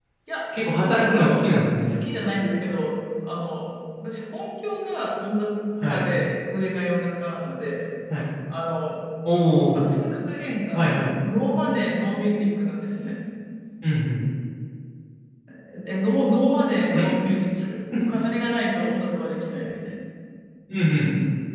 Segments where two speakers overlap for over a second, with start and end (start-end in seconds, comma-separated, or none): 0.7-2.0